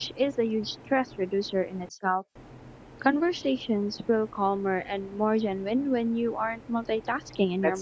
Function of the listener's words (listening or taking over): taking over